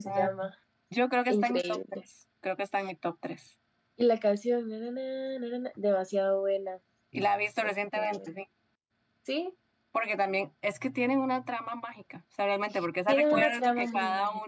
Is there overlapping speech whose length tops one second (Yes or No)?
Yes